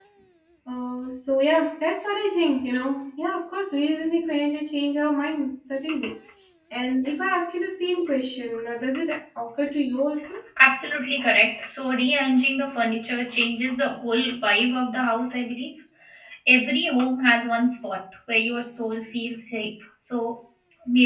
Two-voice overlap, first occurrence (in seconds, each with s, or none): none